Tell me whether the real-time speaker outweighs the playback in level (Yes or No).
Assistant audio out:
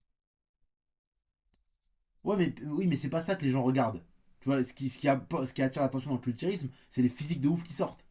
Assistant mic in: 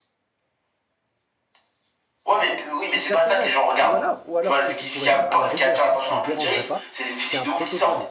No